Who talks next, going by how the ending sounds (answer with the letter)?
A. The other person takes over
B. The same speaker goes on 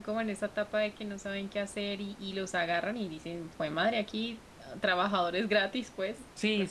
A